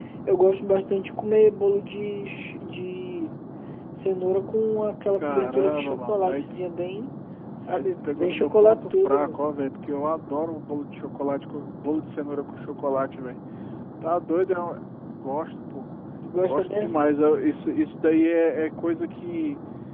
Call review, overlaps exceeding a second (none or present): present